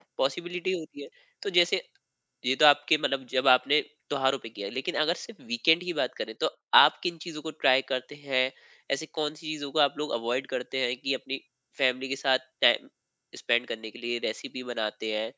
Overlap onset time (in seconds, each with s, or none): none